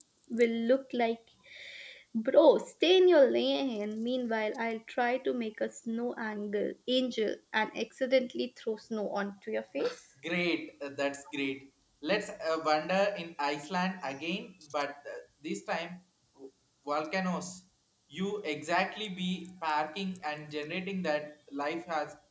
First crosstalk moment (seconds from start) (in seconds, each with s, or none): none